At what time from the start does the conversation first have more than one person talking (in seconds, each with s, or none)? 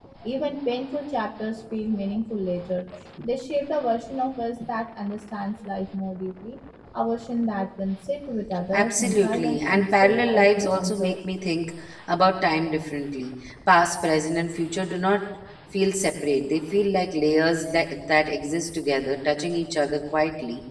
8.7 s